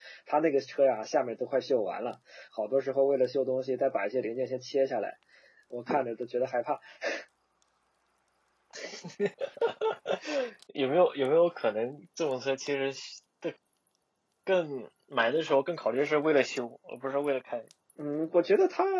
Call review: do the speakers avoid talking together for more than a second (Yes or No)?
Yes